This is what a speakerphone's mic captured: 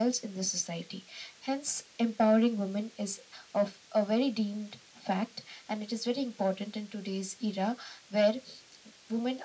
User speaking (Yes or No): No